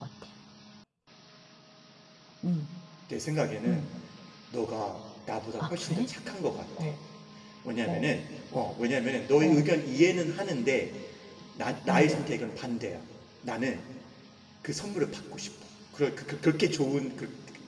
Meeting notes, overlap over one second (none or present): none